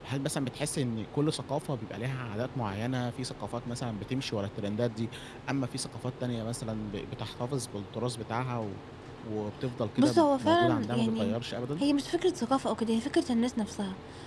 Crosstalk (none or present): present